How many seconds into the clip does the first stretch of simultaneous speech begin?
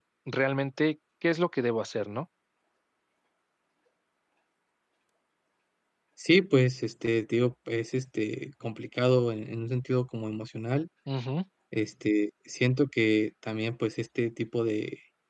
none

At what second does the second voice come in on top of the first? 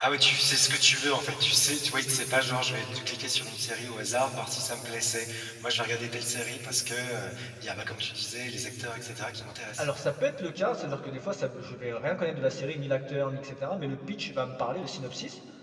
none

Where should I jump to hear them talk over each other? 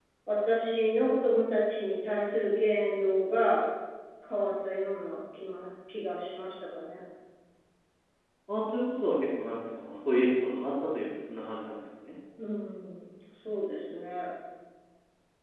none

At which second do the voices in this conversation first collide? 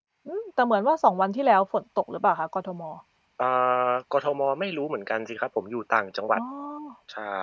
none

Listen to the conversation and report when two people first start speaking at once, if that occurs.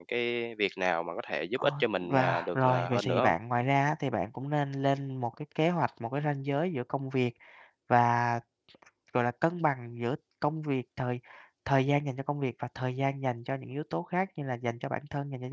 1.6 s

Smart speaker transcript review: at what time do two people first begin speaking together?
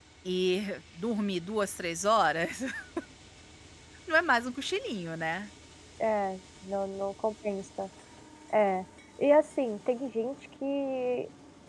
none

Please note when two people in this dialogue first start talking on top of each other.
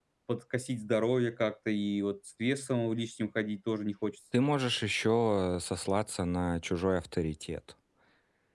none

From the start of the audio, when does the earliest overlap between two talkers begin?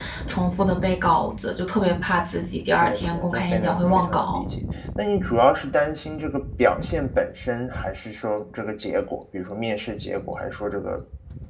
2.7 s

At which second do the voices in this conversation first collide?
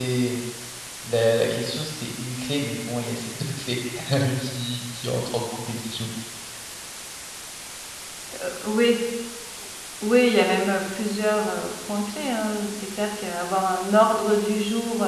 none

